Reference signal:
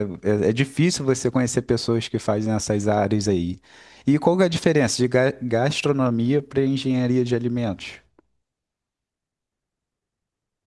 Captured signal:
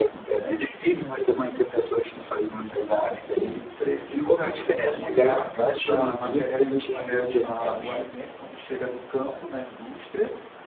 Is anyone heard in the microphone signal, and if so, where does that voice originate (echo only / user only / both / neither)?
both